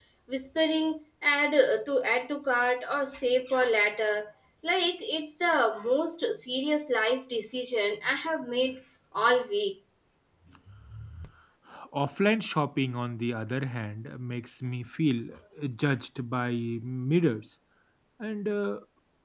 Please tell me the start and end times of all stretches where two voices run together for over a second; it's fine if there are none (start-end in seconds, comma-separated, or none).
none